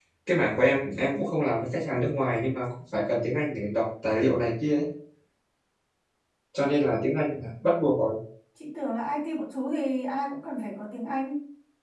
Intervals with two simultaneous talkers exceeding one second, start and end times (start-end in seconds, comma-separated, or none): none